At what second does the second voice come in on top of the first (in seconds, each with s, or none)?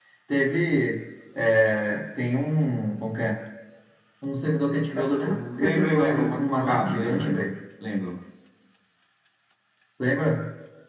5.0 s